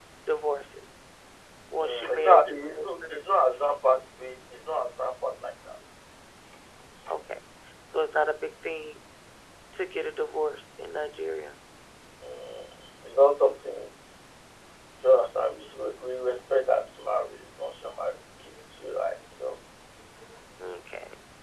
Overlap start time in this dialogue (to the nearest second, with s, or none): 2 s